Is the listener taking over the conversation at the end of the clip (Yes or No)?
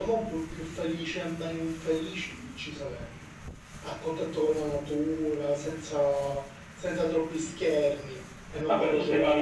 Yes